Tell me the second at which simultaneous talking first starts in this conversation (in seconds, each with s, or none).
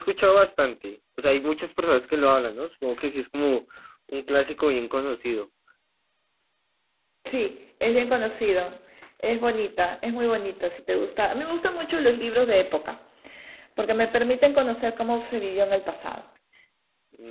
none